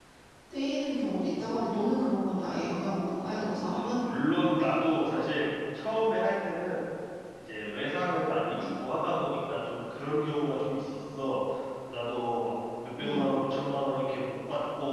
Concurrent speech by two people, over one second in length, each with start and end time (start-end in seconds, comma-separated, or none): none